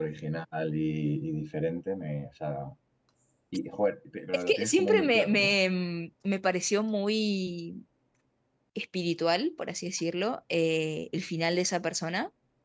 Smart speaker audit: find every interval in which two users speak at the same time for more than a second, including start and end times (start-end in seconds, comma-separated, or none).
4.3-5.6